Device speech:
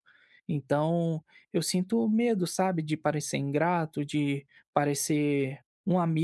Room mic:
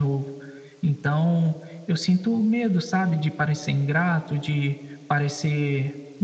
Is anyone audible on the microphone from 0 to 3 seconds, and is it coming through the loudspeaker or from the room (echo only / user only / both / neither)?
echo only